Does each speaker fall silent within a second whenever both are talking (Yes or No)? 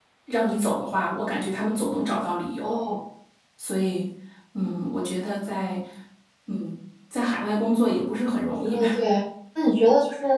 Yes